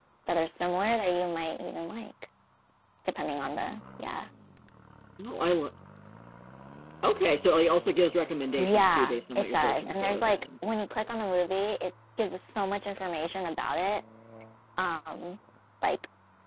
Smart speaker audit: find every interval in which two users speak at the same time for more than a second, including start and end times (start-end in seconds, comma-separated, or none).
8.6-10.4